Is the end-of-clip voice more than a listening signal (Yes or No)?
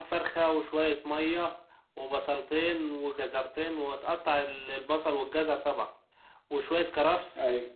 No